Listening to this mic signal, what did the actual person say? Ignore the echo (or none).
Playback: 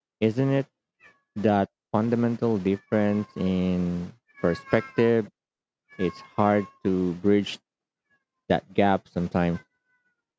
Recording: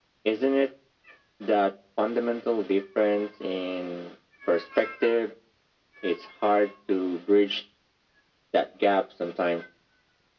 none